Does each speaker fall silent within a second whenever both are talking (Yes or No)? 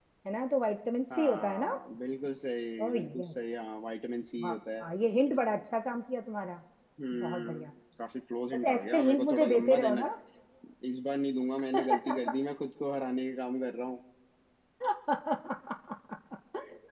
No